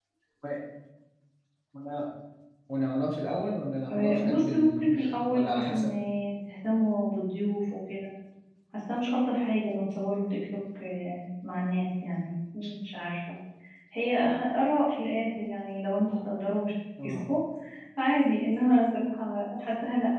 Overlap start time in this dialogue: 3.9 s

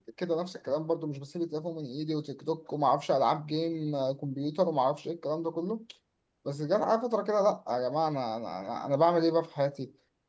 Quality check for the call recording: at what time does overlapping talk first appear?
none

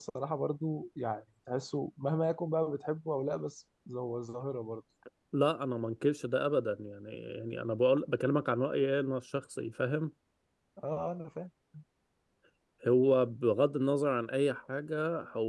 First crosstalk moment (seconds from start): none

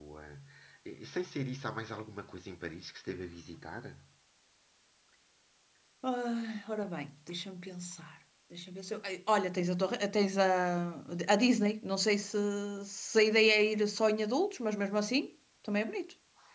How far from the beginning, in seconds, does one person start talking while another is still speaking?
none

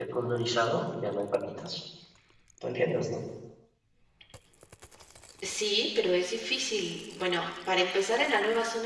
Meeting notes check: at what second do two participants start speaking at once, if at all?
none

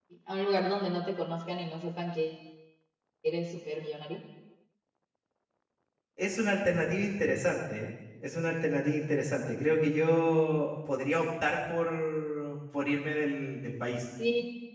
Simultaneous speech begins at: none

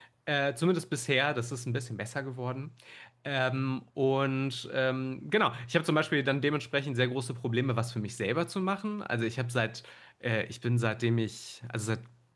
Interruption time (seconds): none

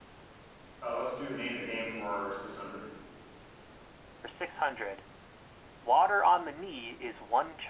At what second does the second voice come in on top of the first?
none

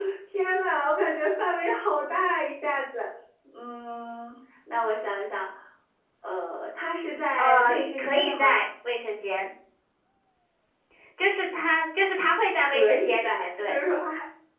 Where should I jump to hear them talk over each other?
7.4 s

